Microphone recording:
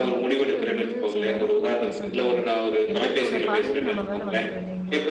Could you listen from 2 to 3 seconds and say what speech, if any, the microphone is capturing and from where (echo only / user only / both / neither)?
both